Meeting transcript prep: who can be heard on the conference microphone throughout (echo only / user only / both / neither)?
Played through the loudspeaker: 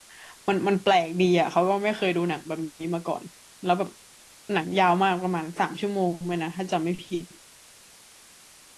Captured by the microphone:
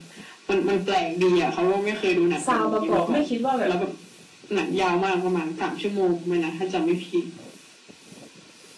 both